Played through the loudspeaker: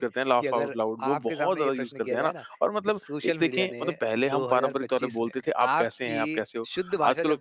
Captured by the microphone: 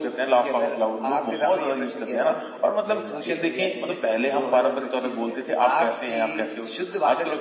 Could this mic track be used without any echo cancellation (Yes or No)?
No